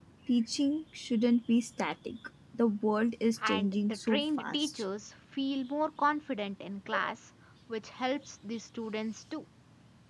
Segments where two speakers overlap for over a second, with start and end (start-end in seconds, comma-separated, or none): 3.5-4.8